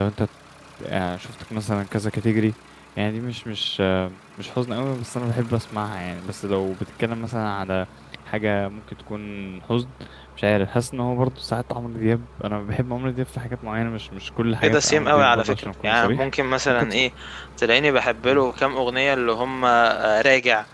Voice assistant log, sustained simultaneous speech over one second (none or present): present